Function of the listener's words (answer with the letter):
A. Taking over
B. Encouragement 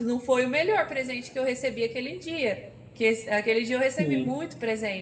B